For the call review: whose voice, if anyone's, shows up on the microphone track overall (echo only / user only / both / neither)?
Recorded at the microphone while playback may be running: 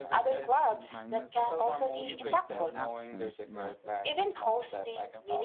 both